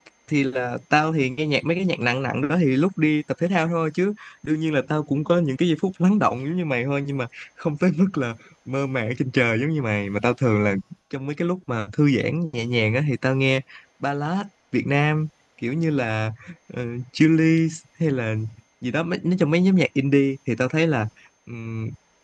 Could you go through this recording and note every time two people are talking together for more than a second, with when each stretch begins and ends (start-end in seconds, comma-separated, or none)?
none